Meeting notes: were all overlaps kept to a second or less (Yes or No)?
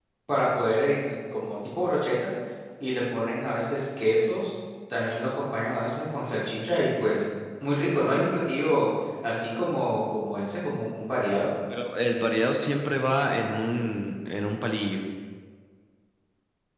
Yes